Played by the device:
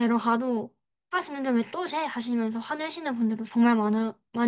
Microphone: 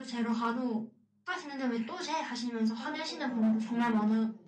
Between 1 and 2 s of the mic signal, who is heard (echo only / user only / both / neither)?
echo only